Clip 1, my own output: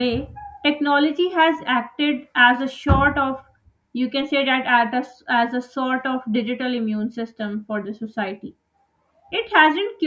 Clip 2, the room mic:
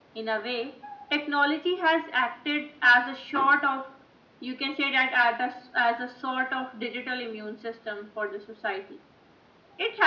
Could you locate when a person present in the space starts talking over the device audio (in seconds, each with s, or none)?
none